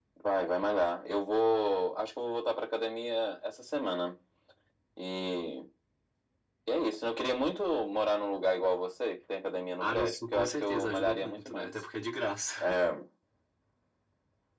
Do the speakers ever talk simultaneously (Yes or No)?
Yes